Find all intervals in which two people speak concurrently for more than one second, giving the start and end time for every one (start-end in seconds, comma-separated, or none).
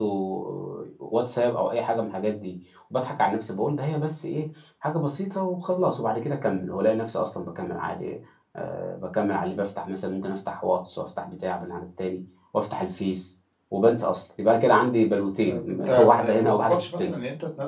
15.5-17.2